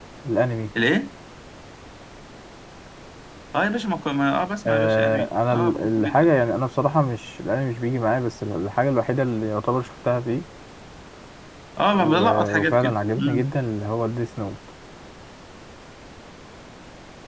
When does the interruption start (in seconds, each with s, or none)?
4.7 s